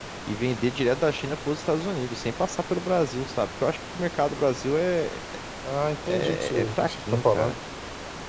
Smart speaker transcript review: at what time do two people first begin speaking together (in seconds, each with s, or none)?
6.1 s